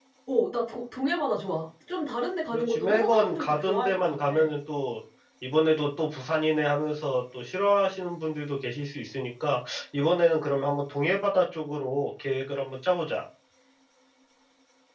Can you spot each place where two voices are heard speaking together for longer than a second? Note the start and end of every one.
2.5-4.3

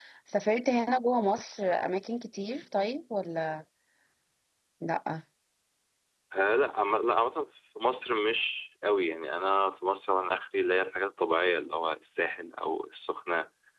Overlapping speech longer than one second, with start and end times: none

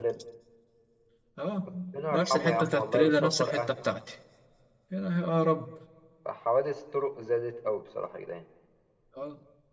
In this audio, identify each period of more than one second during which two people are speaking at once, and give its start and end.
2.1-3.8

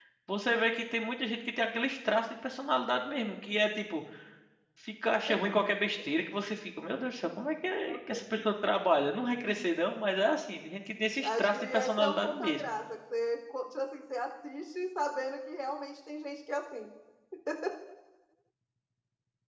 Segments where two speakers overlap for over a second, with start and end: 11.2-12.7

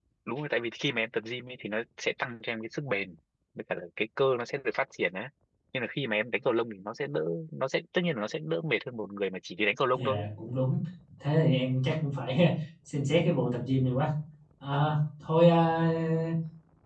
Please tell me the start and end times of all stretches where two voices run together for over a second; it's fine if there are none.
none

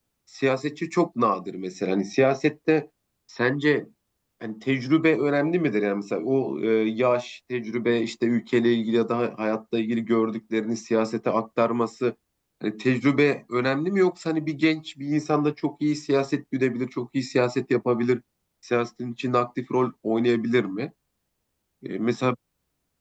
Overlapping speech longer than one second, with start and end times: none

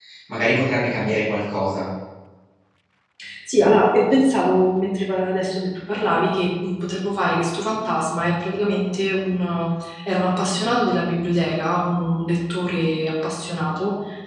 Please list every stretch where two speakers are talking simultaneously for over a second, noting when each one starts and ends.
none

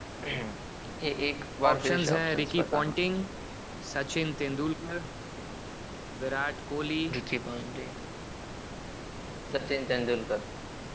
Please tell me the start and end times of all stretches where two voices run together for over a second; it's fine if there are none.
1.7-2.9

